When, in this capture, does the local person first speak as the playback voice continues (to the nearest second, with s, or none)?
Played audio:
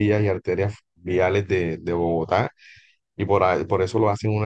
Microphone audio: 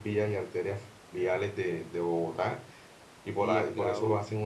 3 s